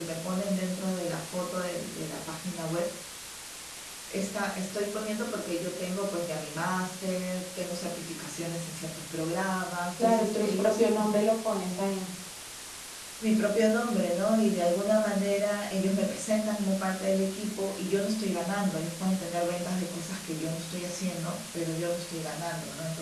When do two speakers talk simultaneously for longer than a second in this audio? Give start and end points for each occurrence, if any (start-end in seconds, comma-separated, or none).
10.0-11.2